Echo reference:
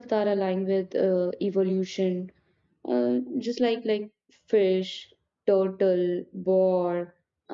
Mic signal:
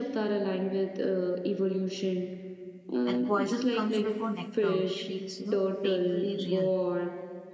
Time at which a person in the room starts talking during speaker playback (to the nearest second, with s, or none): 3 s